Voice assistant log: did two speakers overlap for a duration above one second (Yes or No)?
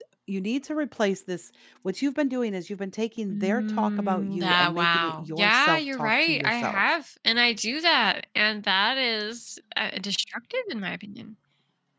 Yes